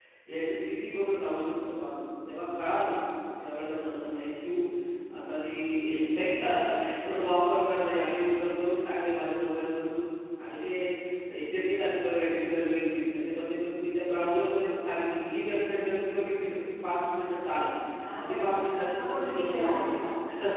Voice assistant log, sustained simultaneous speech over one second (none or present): present